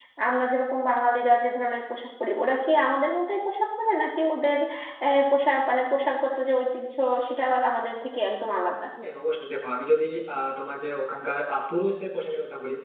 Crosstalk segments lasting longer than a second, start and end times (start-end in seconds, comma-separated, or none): none